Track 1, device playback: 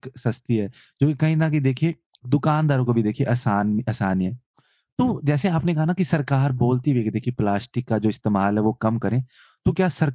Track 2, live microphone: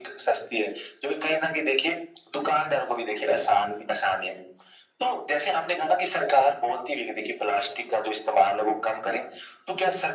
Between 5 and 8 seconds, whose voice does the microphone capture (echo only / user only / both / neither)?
echo only